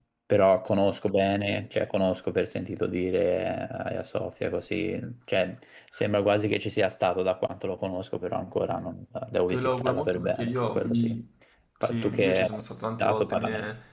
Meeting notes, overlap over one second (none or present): present